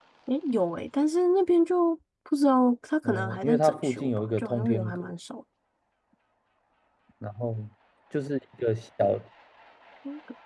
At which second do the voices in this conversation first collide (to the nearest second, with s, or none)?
3 s